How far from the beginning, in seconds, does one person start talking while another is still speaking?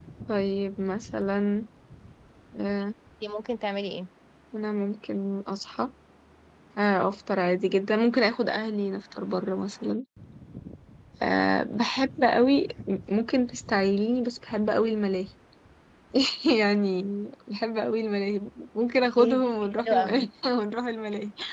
19.0 s

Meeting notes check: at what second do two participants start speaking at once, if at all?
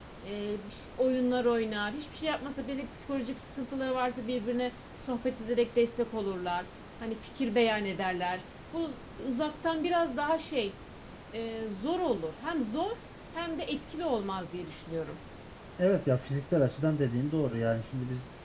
none

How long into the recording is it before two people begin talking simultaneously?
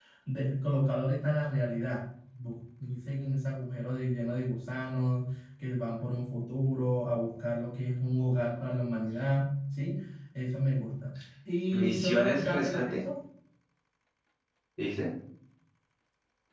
11.7 s

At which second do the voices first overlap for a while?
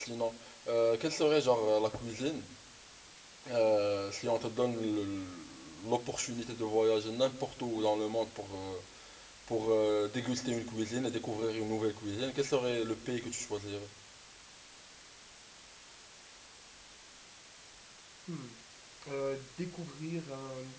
none

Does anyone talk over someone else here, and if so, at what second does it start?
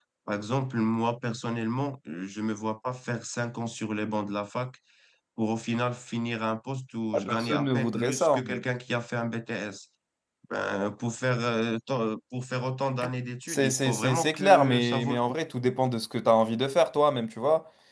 7.1 s

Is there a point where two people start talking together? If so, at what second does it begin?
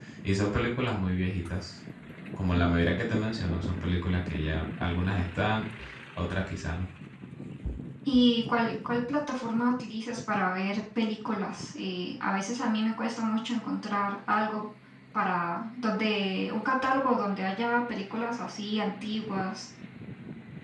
none

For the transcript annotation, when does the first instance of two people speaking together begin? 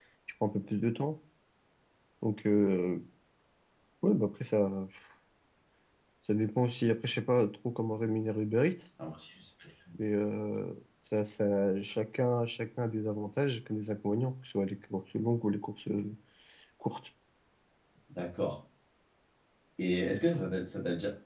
none

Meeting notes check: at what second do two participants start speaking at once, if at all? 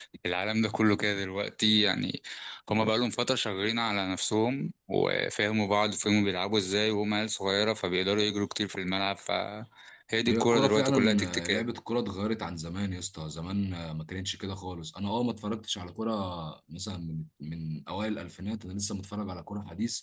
10.3 s

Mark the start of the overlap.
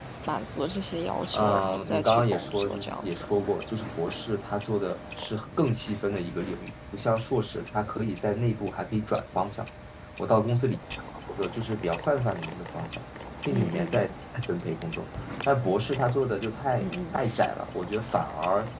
1.3 s

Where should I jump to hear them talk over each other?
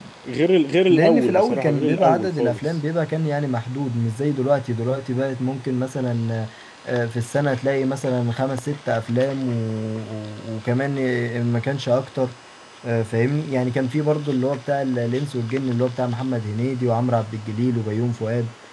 0.9 s

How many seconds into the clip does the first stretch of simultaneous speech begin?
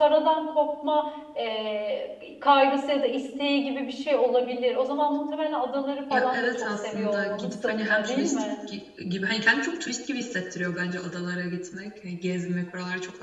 6.1 s

